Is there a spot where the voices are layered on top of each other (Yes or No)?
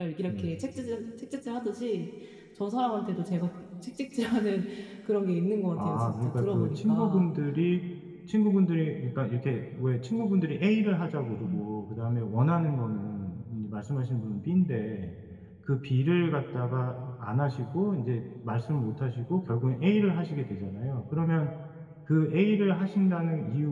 Yes